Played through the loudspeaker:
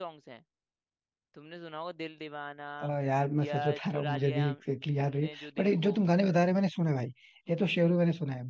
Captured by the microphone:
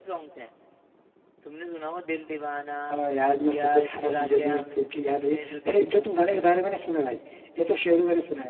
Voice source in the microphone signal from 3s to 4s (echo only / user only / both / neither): echo only